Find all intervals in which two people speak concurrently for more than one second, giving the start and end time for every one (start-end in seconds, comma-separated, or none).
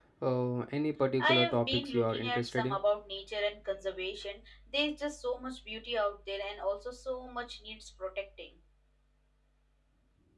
1.2-2.8